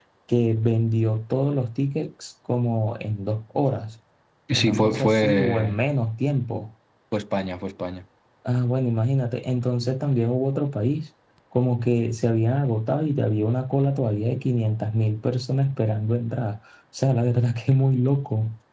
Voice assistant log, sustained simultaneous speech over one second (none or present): present